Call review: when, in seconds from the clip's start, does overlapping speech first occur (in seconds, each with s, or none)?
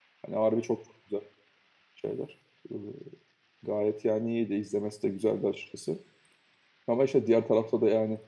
none